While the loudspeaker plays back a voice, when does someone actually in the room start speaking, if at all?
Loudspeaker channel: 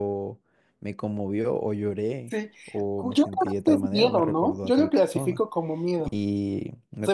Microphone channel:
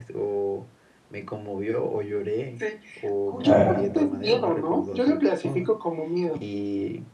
3 s

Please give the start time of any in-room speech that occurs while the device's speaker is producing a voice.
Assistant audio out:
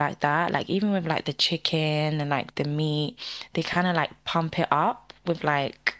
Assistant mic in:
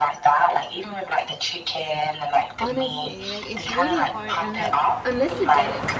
3 s

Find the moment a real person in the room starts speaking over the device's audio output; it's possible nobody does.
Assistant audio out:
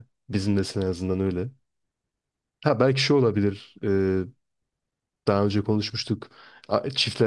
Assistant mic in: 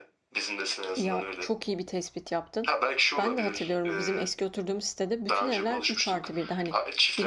1 s

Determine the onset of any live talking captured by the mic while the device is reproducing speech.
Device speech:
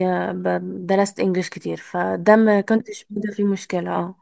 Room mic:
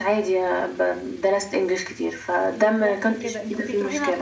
3 s

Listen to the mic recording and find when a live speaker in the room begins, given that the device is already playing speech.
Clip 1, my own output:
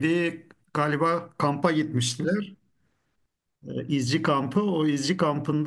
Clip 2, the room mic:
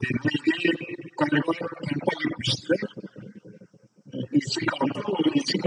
none

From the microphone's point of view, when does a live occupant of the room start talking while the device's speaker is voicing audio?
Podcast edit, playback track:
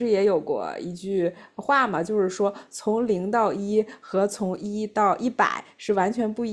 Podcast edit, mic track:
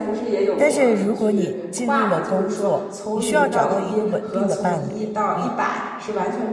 1 s

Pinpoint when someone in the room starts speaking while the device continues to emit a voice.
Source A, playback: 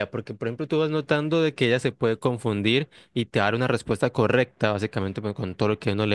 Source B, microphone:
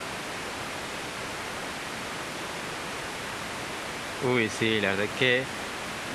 4 s

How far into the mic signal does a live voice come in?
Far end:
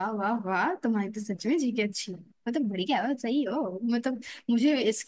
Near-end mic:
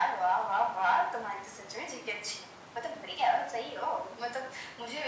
none

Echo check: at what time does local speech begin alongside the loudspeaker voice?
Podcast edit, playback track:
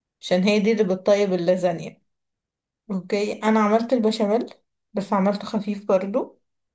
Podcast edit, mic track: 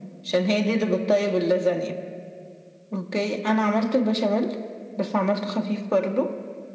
none

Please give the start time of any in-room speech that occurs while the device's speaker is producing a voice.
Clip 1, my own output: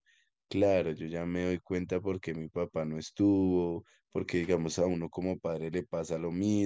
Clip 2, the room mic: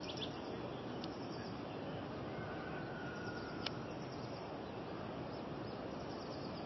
none

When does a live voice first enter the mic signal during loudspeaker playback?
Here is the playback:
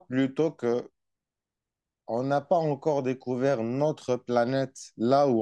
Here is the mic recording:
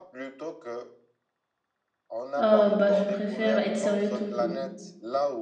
2 s

